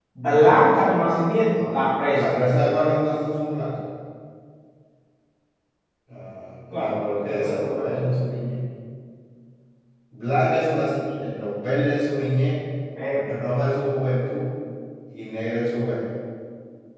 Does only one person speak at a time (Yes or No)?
No